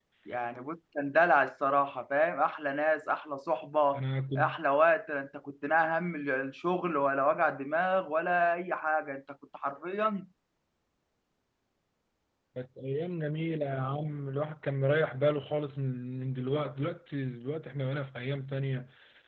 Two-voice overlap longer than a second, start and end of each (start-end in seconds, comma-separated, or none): none